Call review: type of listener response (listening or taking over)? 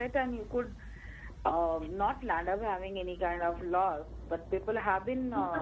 listening